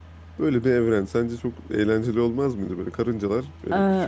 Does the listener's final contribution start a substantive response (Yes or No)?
No